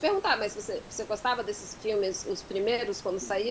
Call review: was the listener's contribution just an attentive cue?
No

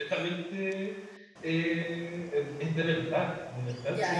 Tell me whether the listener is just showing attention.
No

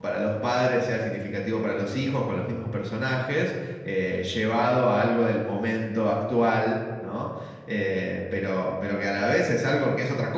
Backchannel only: Yes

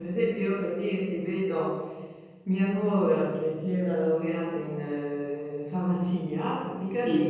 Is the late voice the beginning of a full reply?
No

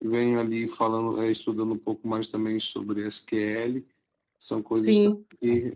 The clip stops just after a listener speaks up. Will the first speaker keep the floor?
Yes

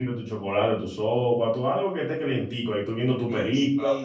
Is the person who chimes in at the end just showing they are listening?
No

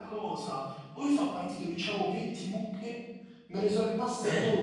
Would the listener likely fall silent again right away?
Yes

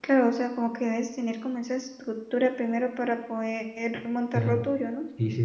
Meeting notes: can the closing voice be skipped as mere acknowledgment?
No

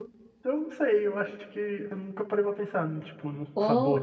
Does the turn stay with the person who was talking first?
No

